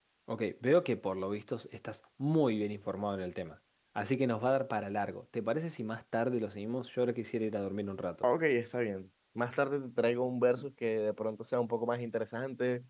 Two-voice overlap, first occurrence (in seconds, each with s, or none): none